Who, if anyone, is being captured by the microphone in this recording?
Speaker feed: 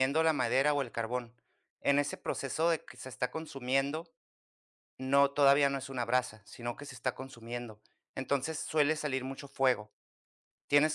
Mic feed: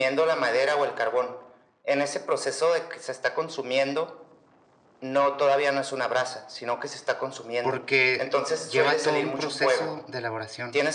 both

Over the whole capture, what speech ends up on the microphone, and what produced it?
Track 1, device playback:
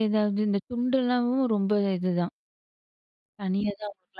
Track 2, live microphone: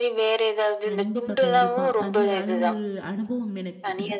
both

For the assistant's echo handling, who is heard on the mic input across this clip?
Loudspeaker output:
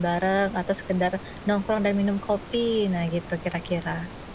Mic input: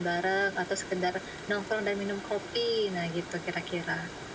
echo only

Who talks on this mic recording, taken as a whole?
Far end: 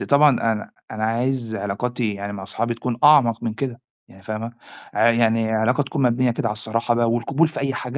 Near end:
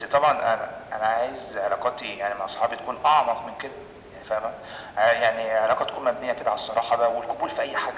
echo only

